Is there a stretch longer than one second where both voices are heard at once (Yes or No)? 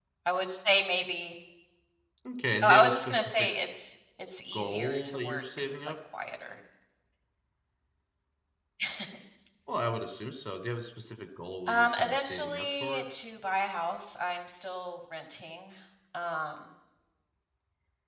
Yes